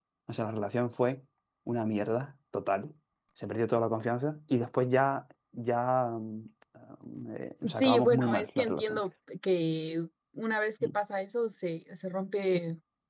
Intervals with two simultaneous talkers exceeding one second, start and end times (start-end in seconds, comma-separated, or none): 7.7-9.0